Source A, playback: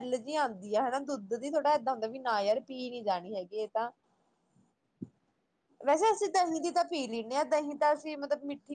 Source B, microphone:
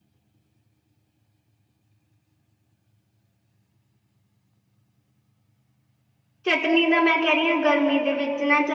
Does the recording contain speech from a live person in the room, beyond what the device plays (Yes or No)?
Yes